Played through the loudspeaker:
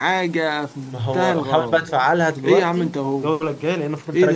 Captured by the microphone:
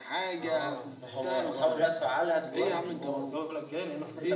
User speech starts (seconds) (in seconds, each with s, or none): 0.4 s